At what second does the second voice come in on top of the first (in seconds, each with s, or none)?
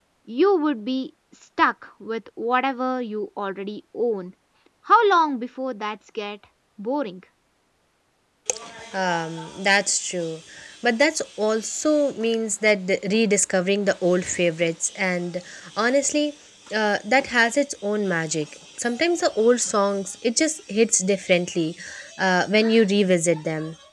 none